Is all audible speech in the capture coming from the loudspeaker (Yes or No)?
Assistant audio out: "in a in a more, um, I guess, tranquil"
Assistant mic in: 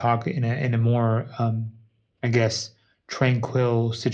Yes